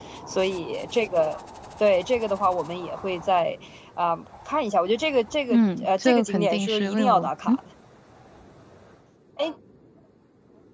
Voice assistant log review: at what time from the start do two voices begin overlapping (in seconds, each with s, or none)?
5.5 s